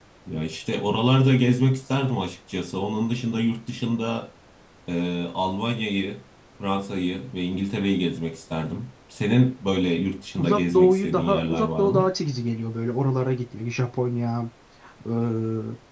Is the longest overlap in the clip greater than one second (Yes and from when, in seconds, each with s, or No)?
Yes, from 10.4 s